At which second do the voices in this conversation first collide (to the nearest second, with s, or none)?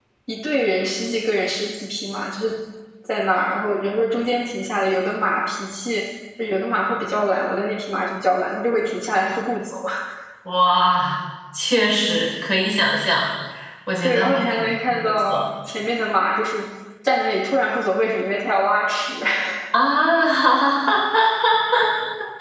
14 s